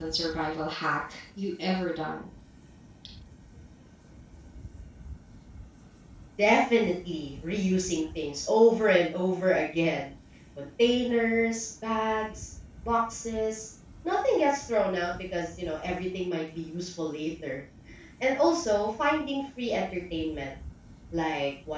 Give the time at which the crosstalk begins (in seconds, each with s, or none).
none